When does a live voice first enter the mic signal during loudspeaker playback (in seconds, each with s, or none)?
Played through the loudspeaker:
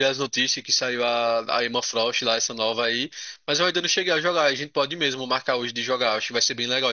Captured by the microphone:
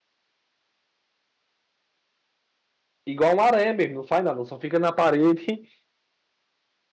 3.0 s